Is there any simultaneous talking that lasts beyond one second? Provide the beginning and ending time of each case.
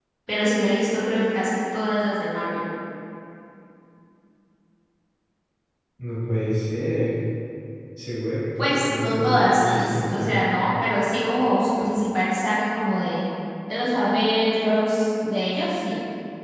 8.6-10.3

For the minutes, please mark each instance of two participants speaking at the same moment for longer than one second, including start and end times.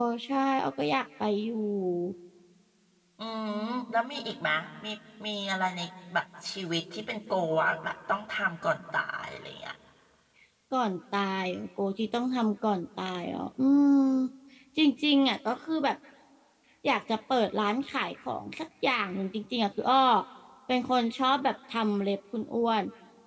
none

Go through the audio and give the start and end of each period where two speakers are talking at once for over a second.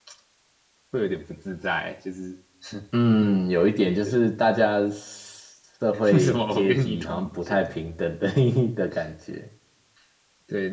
6.1-7.6

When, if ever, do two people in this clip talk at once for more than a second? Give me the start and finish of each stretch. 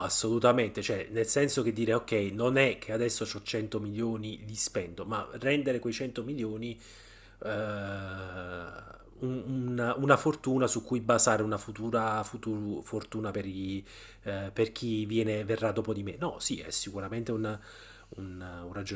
none

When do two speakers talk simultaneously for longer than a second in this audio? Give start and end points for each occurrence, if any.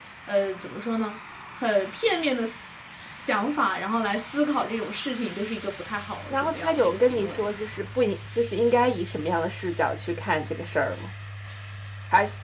6.3-7.5

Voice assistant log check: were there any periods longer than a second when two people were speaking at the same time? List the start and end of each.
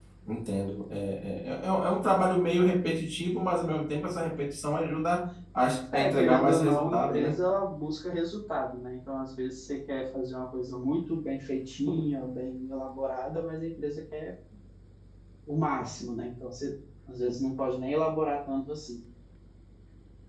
5.9-7.4

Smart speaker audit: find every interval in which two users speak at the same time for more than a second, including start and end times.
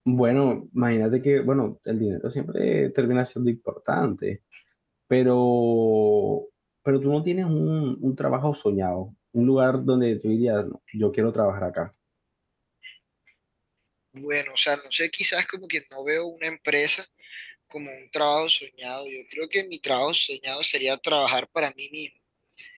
none

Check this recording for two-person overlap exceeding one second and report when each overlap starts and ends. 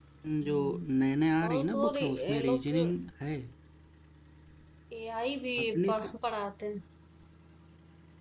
1.5-2.7

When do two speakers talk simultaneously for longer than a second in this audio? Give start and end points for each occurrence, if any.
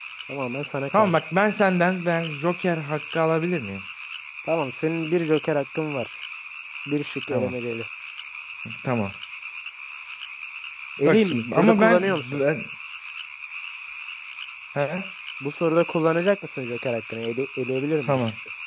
11.0-12.4

